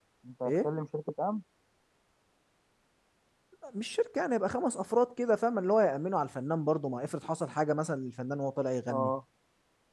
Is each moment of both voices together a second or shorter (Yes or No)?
Yes